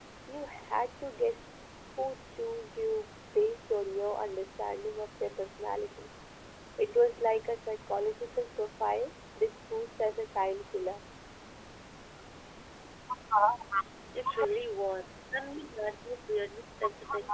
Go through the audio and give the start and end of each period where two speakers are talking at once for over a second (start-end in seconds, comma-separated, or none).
none